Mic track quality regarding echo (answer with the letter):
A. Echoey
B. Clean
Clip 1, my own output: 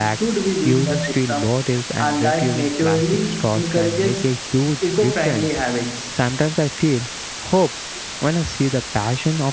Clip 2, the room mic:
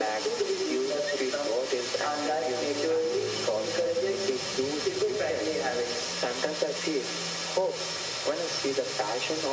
A